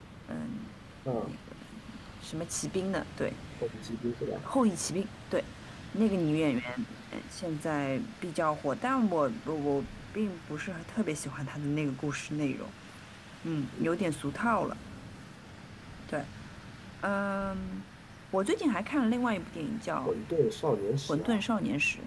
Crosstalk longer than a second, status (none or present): none